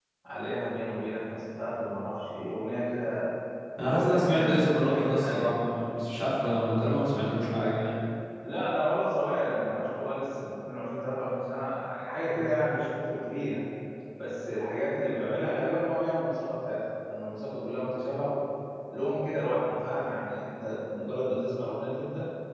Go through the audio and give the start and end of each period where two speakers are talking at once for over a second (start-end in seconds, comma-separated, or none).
3.8-5.6